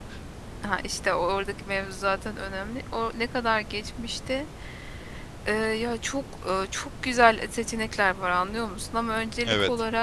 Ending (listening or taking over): listening